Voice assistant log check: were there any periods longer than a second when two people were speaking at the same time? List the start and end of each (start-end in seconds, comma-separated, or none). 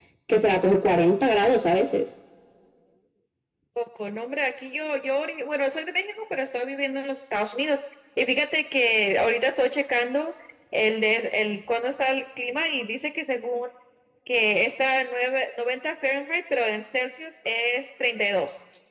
none